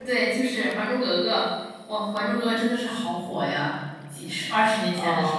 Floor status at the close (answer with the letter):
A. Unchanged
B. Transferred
B